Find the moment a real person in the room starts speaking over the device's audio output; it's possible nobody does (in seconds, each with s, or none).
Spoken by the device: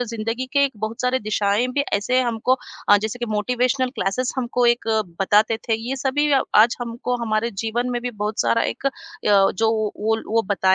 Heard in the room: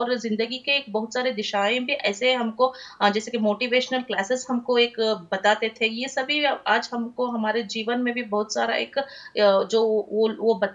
none